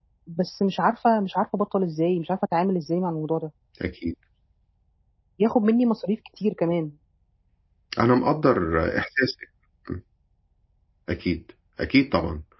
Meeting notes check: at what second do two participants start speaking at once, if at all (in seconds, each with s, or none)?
none